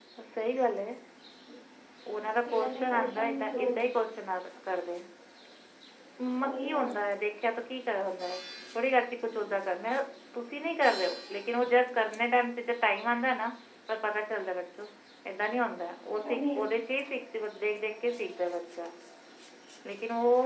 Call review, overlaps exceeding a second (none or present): present